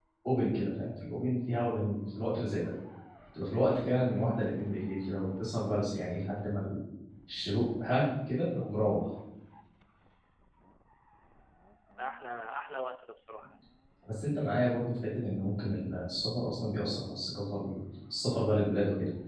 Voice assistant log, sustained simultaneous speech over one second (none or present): none